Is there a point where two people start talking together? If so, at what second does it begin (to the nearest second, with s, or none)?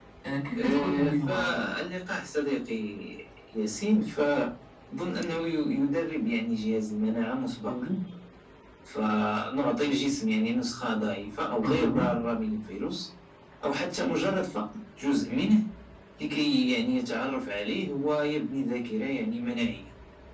1 s